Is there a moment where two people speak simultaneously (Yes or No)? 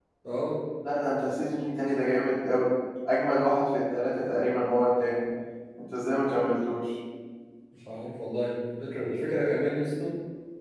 No